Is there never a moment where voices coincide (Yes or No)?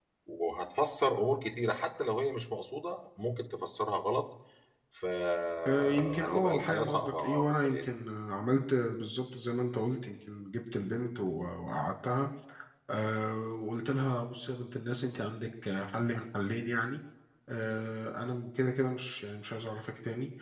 No